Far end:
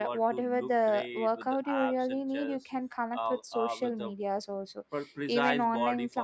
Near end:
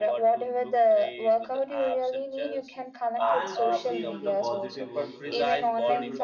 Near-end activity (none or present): present